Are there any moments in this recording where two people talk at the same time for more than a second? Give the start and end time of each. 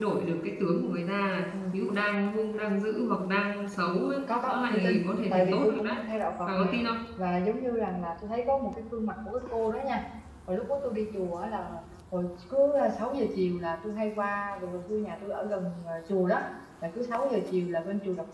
4.3-6.0

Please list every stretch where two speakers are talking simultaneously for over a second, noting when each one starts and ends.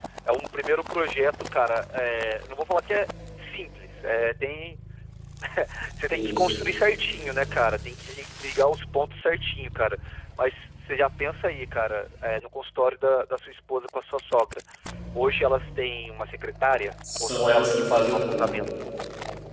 17.2-18.6

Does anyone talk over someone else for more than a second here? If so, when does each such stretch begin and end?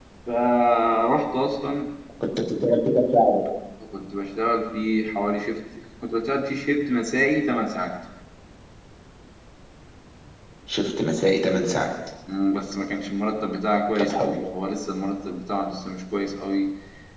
none

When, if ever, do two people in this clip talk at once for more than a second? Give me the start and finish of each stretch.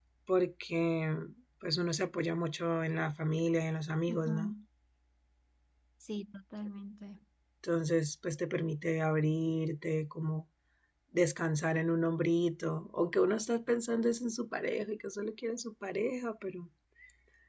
none

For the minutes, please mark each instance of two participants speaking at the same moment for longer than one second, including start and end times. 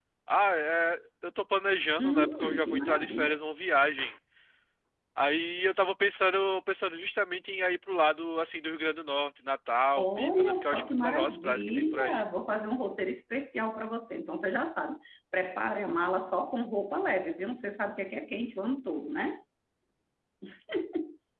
2.0-3.4, 9.9-12.2

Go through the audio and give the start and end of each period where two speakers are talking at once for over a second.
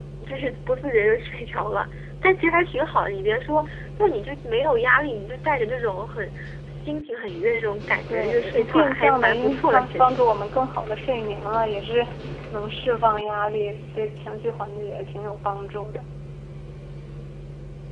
8.1-10.2

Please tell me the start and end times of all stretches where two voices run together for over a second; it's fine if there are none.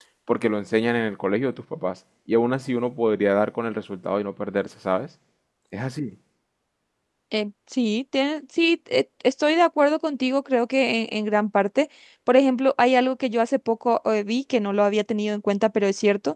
none

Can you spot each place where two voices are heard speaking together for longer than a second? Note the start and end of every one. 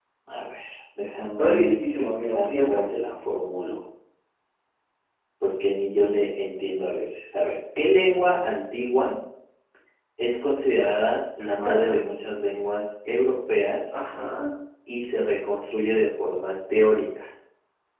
1.4-2.8

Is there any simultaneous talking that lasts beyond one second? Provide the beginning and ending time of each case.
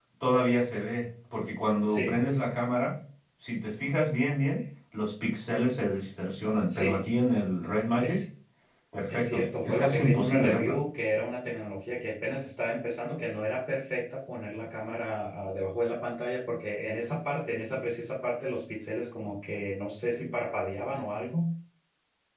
9.1-10.8

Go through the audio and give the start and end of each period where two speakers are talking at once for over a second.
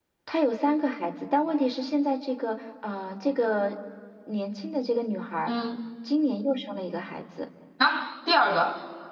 none

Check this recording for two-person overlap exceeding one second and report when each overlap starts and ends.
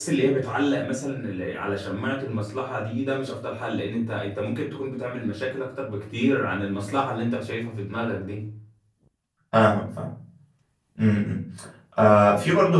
none

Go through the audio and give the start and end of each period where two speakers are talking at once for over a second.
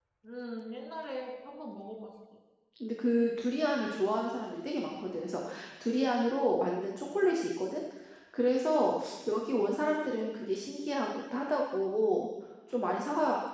none

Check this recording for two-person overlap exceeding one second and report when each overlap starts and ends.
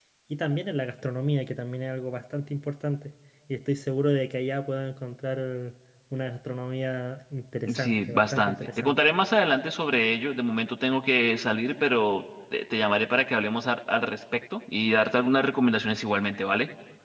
7.7-9.0

